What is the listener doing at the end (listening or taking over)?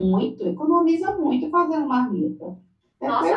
taking over